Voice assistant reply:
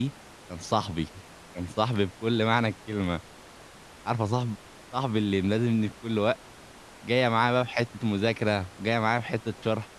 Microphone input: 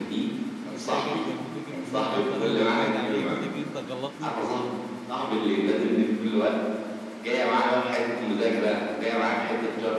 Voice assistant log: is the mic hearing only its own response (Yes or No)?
No